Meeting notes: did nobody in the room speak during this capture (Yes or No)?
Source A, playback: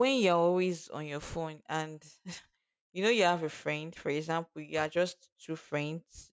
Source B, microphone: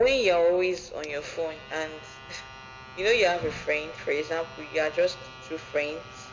Yes